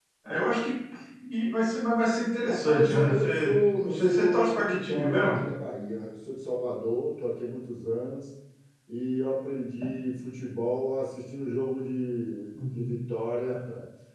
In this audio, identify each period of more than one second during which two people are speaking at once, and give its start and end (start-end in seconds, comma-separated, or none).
2.5-5.4